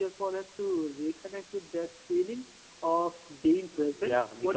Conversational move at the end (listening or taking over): taking over